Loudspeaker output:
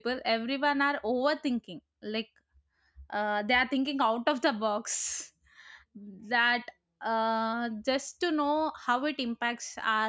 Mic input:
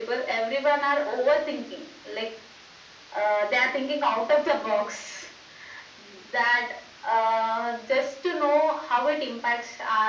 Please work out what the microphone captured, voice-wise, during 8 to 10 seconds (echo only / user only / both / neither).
echo only